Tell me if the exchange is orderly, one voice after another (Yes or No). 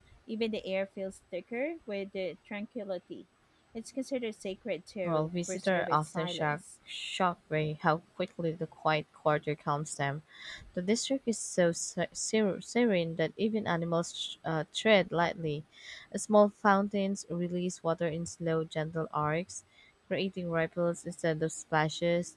No